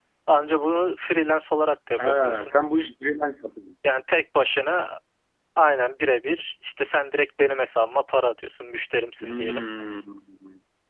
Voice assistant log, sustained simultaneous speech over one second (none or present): none